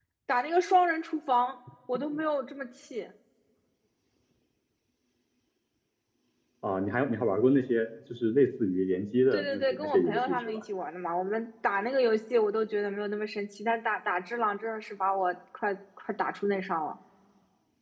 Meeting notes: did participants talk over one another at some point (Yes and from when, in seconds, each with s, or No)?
Yes, from 9.3 s